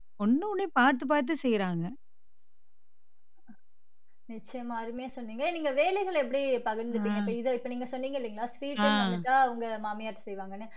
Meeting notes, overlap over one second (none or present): none